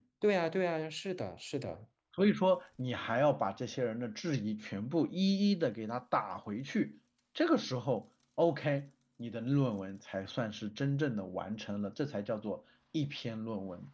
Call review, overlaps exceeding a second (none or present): none